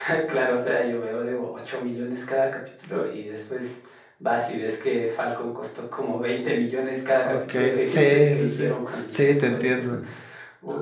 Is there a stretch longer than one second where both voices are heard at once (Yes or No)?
Yes